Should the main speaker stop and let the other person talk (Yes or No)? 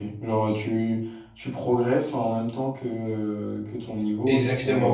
Yes